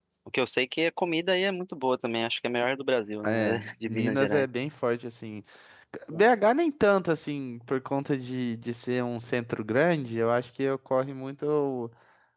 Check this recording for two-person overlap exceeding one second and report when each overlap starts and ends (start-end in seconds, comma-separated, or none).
3.2-4.5